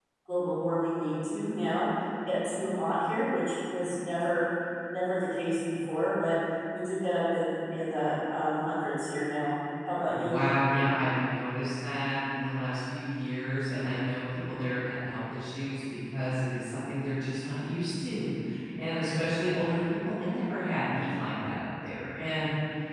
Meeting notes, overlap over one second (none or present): none